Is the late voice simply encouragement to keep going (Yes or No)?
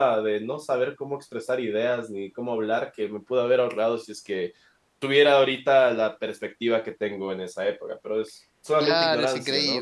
No